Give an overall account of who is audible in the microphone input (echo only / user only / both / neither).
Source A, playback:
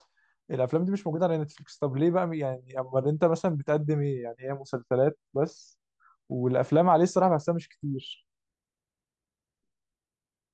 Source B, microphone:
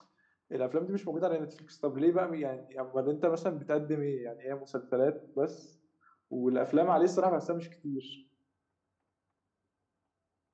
echo only